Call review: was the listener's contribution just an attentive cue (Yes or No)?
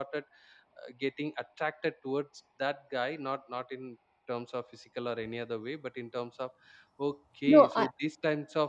Yes